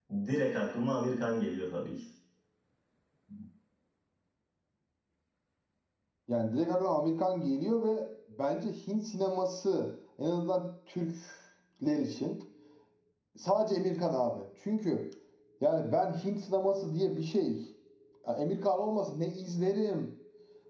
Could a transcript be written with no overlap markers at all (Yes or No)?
Yes